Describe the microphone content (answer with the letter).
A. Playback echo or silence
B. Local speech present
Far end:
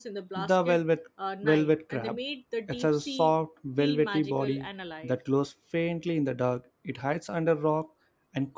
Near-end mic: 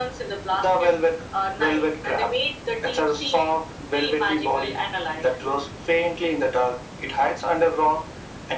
A